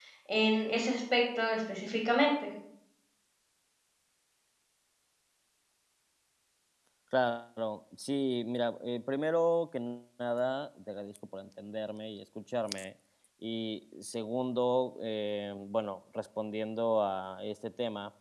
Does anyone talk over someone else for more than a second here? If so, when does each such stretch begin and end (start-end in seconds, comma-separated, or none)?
none